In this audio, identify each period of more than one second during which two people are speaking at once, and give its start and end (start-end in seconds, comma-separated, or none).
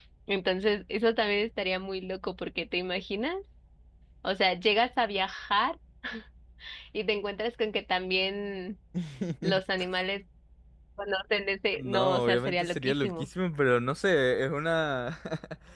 11.8-13.3